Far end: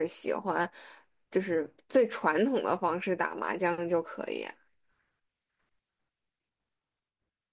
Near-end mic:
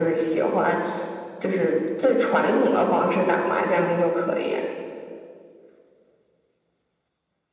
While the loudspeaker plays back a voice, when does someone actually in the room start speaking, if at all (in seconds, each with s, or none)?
none